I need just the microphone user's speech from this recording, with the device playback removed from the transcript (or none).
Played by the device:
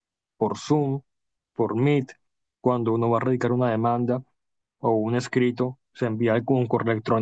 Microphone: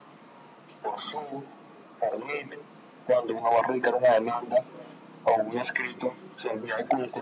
none